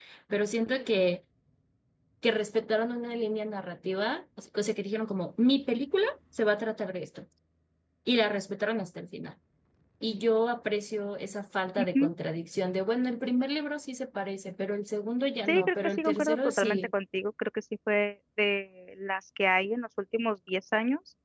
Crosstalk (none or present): present